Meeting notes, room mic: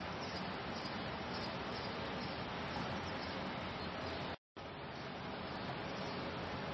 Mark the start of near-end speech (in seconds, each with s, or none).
none